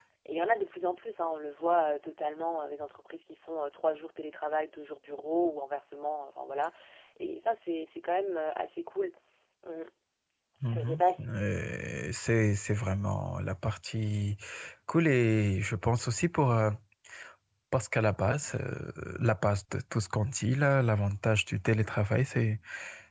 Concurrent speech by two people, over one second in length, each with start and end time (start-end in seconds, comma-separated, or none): none